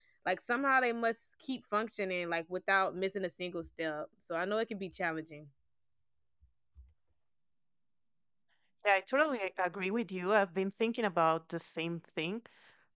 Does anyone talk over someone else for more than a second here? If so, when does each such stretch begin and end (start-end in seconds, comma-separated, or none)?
none